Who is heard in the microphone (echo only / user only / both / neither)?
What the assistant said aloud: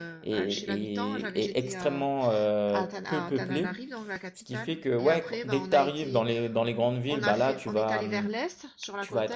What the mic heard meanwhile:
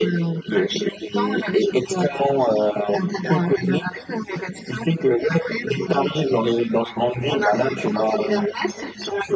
echo only